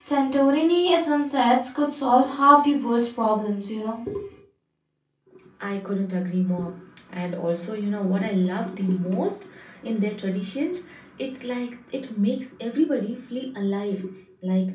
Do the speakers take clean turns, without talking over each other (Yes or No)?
Yes